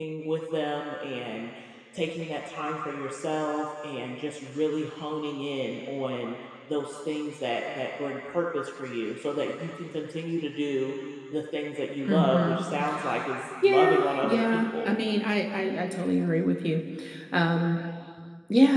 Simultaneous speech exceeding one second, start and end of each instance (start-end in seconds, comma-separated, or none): 13.6-15.0